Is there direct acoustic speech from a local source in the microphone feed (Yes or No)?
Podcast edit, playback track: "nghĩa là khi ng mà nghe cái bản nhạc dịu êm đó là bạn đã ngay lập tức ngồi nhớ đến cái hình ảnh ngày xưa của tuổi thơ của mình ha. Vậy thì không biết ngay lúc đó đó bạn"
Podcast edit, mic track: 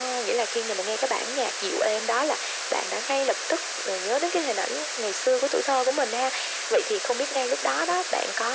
No